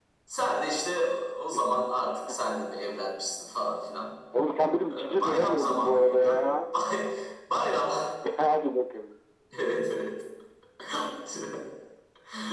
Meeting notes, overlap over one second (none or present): present